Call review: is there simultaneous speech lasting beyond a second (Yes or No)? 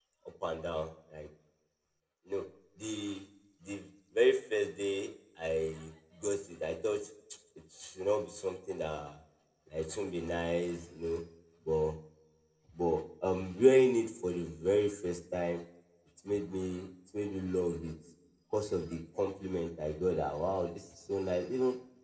No